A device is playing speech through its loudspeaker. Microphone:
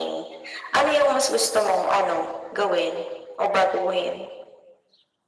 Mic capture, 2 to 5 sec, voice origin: echo only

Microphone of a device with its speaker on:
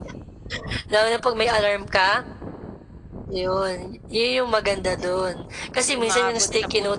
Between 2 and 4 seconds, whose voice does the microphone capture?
echo only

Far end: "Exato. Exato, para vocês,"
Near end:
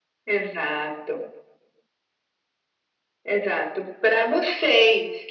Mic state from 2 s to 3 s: neither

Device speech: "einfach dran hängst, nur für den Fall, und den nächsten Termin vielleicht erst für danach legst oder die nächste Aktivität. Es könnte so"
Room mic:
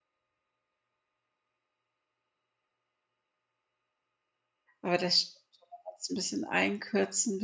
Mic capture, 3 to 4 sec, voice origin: neither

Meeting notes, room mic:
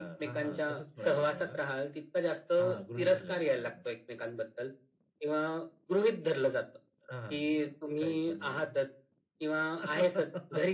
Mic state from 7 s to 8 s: echo only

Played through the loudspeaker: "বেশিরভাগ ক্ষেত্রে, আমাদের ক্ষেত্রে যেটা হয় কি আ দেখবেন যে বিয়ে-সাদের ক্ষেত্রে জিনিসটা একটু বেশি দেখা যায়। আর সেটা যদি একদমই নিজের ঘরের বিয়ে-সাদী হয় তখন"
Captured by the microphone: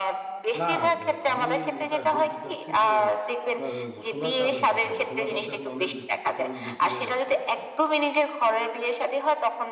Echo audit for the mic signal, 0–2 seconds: both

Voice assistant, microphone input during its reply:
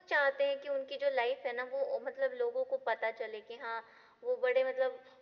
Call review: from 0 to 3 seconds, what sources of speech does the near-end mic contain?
echo only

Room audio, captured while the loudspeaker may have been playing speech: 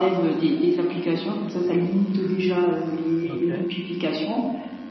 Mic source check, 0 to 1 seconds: echo only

